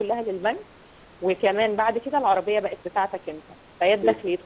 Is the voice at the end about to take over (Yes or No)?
No